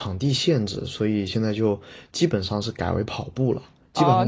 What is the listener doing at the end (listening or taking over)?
taking over